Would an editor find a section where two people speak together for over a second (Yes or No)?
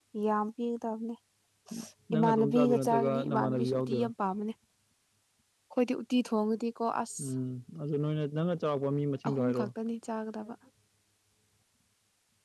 Yes